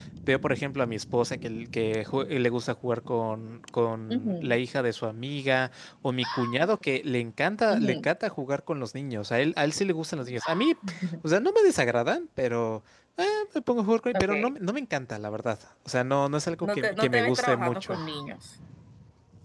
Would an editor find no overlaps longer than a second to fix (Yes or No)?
No